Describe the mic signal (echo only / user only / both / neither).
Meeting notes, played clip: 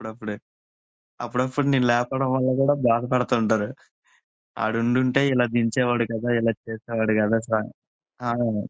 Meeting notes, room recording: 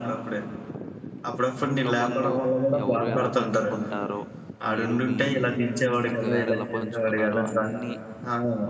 both